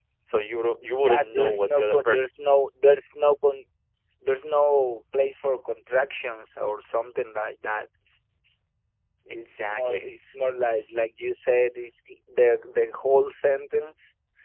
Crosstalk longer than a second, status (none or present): present